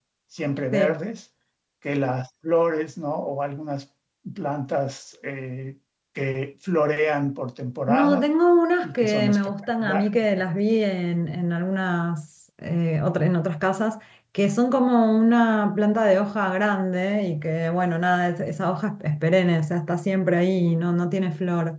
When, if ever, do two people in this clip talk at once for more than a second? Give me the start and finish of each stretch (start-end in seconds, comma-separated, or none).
8.8-10.5